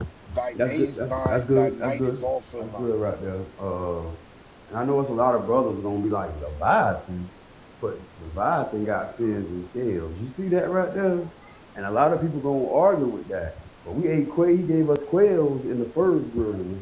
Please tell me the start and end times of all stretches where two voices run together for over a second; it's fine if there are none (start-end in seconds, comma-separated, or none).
0.5-2.9